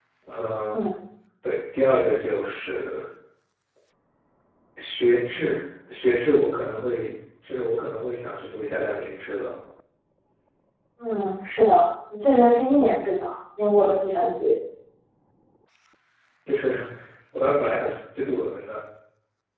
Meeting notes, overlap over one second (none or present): none